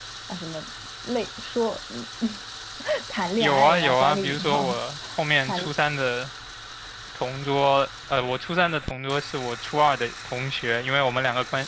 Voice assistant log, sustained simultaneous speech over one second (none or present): present